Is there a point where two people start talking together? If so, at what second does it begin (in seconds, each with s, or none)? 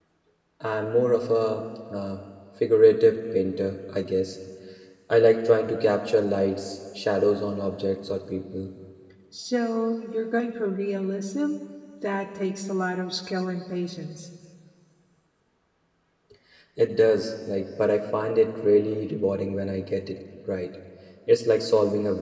none